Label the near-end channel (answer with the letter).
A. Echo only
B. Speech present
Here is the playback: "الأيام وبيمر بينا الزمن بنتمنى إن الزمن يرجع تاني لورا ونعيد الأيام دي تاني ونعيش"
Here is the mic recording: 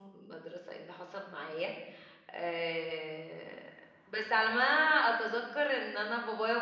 B